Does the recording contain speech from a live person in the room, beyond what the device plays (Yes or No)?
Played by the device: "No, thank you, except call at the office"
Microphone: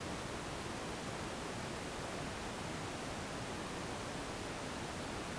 No